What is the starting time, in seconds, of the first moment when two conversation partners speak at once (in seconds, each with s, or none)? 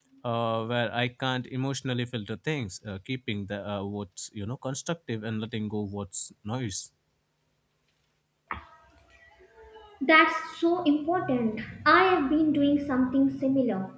none